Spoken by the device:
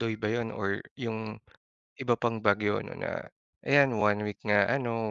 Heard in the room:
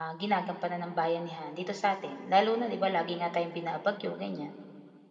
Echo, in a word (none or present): none